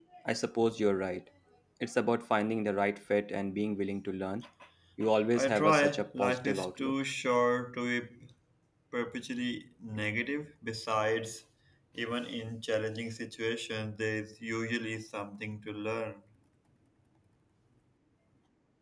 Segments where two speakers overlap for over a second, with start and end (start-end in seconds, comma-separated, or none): 5.3-6.9